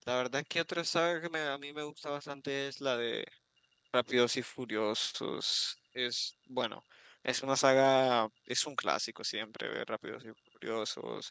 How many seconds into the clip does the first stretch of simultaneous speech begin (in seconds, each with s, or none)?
none